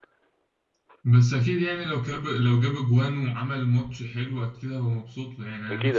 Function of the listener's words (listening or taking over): taking over